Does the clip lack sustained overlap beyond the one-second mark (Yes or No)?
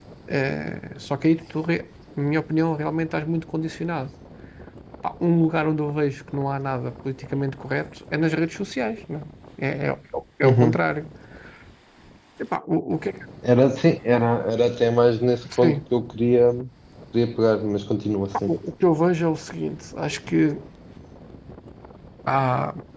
Yes